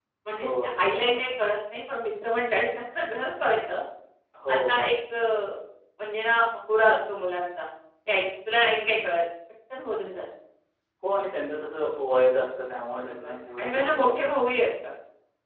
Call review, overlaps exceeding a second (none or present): present